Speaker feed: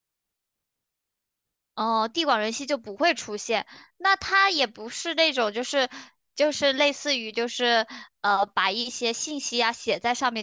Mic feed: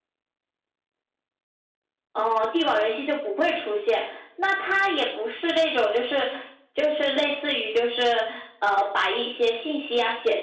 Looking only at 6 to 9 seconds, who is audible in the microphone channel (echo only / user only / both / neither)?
echo only